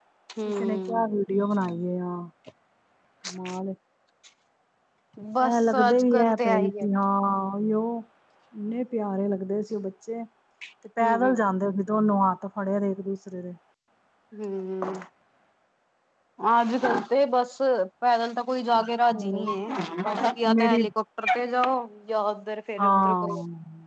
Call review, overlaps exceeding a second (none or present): present